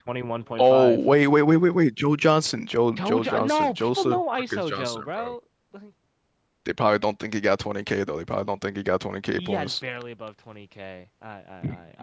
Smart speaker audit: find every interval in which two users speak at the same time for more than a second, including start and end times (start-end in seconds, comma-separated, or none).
3.0-5.3